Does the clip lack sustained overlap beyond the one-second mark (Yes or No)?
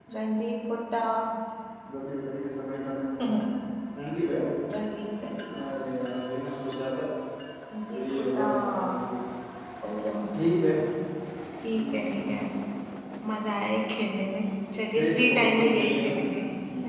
No